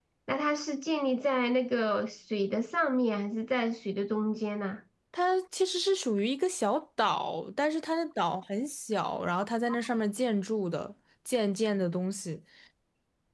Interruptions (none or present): none